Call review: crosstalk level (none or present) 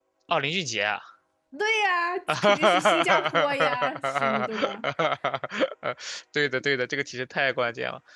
present